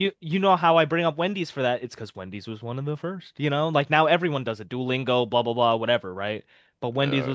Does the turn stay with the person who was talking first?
No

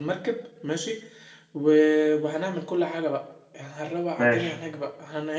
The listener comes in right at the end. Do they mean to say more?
No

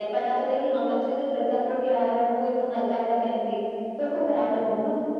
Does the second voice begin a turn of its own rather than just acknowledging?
Yes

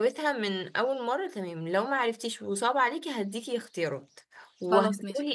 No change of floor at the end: Yes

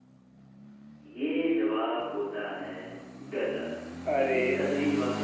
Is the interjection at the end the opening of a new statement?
No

